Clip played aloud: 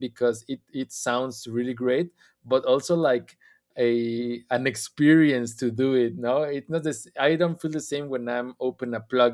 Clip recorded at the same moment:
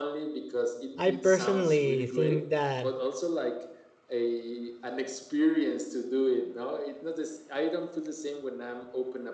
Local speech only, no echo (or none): I personally think that